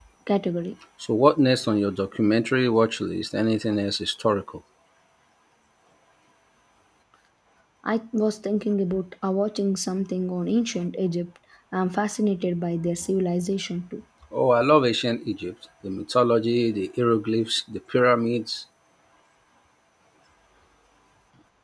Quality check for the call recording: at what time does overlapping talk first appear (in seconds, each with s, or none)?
none